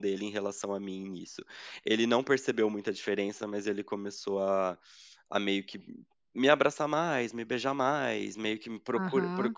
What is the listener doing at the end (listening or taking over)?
taking over